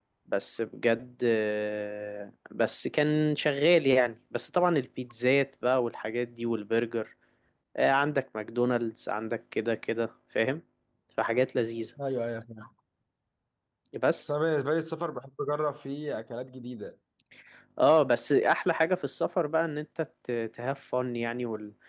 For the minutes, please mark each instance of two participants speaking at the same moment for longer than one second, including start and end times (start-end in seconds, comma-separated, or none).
none